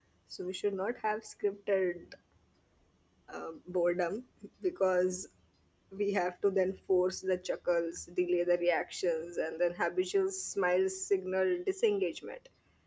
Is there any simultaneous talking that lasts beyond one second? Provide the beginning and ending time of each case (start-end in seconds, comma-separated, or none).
none